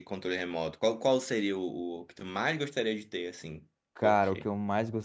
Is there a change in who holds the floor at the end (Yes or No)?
Yes